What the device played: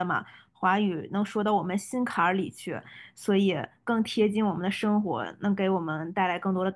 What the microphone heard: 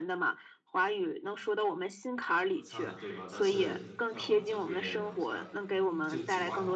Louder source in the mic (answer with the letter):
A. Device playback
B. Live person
A